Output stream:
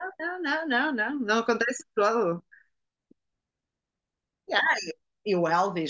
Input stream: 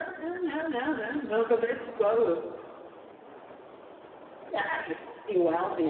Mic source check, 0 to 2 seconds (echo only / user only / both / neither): echo only